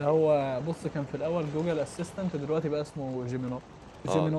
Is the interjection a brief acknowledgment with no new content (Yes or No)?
No